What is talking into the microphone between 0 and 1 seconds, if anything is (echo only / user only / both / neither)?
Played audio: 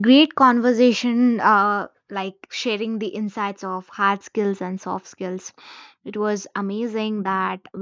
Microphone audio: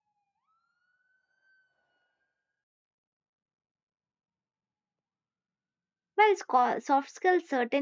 neither